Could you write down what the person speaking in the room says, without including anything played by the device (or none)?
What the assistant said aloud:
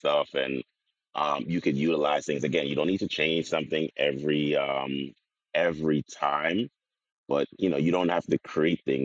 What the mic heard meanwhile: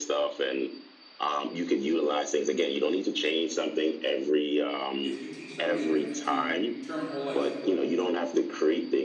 If you teach somebody the difference between term and whole life,